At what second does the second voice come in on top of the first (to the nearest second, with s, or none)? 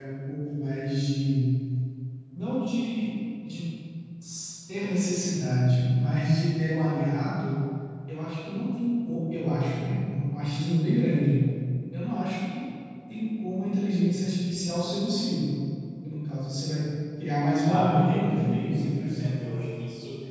18 s